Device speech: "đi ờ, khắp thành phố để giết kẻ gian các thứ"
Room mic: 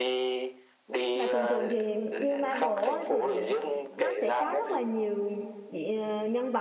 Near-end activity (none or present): present